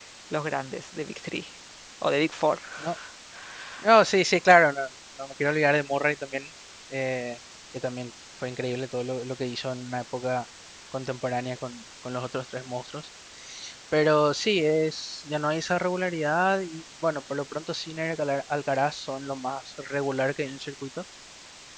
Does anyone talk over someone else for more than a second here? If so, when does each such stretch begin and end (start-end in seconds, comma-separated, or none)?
none